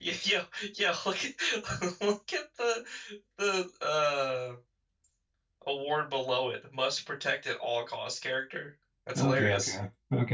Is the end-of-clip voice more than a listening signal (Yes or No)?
Yes